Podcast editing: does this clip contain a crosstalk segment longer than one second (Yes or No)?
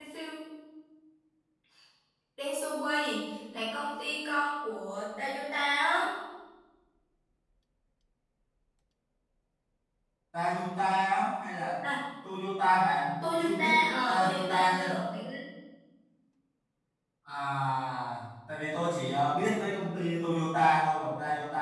Yes